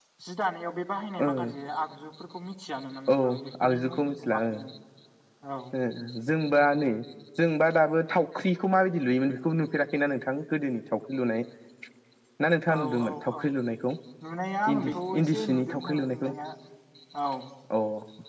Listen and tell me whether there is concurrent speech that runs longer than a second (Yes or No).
Yes